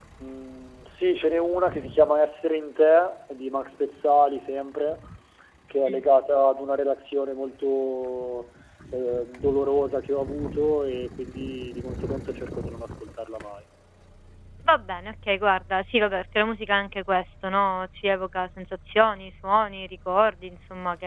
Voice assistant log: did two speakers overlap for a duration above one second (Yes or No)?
No